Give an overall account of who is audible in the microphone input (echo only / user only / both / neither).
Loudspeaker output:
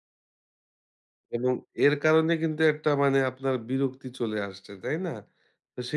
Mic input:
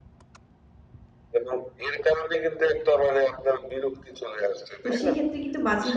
both